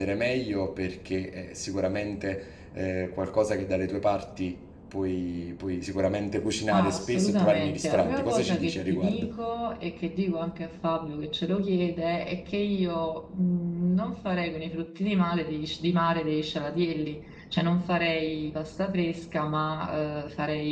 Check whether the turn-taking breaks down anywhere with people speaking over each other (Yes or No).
Yes